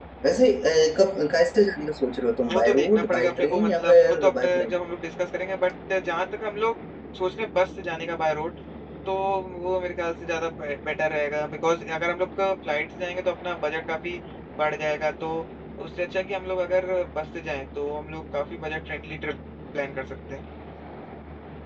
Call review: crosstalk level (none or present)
present